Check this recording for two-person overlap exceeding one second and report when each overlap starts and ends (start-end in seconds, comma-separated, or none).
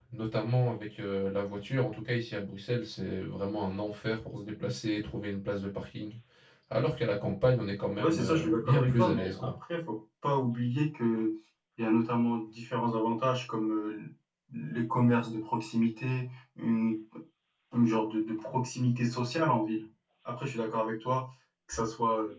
8.0-9.5